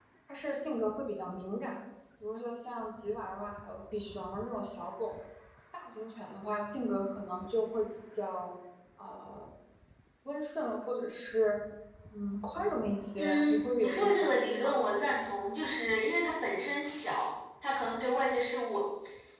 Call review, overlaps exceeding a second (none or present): present